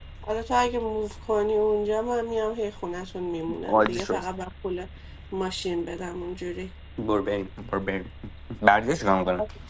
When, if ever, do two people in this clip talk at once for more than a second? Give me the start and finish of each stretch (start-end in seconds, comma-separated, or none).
none